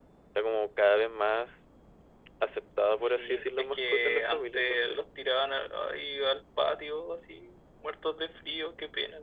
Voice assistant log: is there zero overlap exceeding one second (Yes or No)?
No